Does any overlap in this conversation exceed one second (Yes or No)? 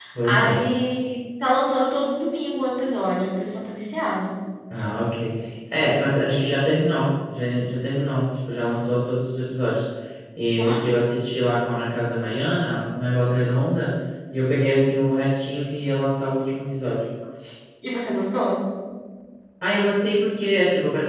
No